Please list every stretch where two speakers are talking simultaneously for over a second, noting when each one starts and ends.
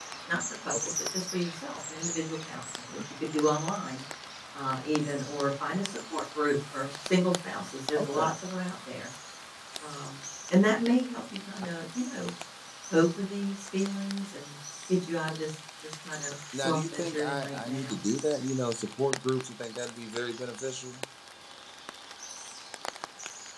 16.5-18.0

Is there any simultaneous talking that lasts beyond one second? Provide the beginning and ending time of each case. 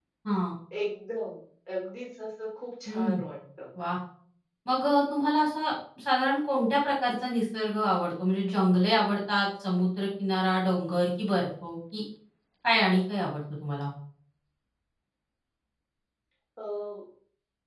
none

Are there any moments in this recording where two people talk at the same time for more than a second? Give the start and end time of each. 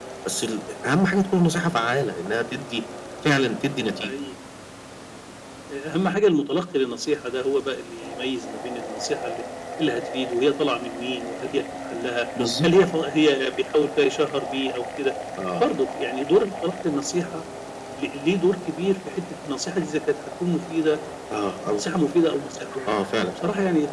none

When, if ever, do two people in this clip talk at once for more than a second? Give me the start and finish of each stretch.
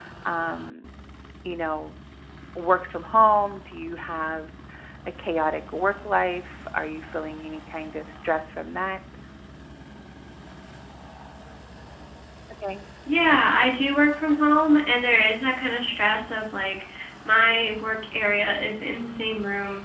none

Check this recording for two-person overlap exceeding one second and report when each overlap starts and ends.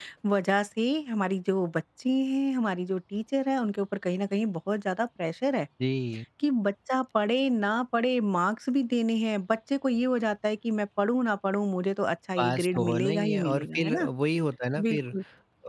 12.4-14.1

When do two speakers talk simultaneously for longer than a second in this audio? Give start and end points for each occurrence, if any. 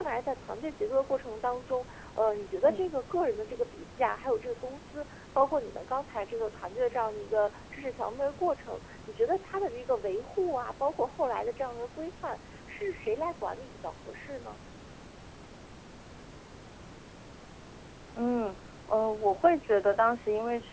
none

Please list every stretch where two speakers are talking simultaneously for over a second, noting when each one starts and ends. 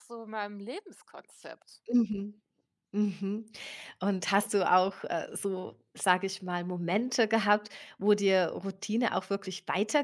none

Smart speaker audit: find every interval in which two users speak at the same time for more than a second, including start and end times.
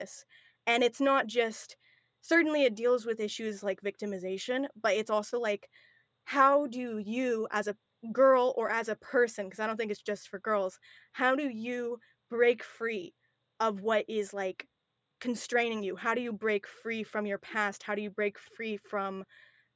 none

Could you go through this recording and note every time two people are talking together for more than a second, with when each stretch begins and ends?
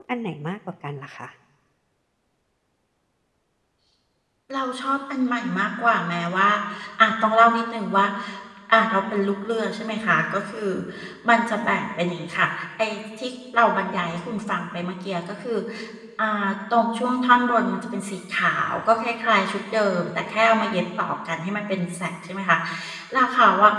none

